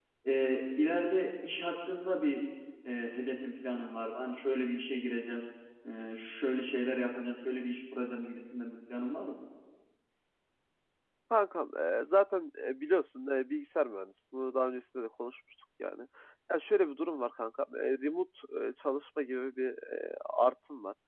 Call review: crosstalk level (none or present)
none